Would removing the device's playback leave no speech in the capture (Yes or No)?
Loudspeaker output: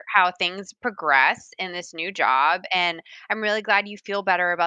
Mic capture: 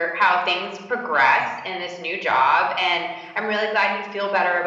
Yes